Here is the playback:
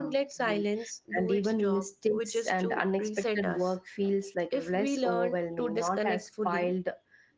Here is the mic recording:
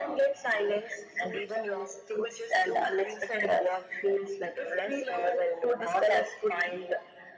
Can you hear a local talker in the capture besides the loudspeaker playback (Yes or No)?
No